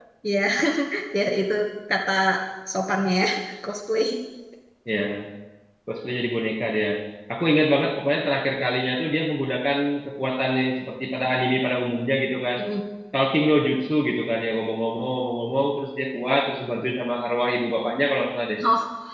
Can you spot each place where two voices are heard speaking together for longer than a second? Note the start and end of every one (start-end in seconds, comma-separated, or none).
none